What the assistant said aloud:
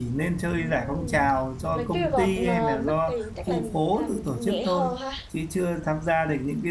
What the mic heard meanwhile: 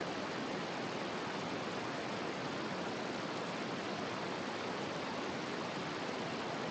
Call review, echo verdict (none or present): none